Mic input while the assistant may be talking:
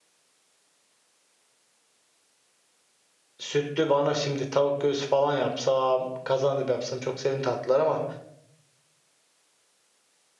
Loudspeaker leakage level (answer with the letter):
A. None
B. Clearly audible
A